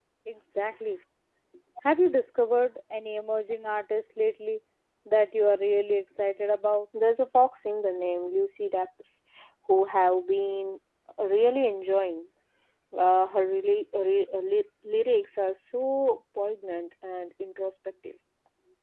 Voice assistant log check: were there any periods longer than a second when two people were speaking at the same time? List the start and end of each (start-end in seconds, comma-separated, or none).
none